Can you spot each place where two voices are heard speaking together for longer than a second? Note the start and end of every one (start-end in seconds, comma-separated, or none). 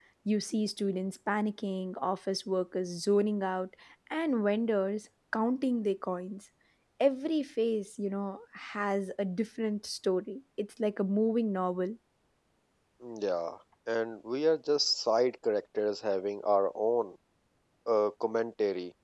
none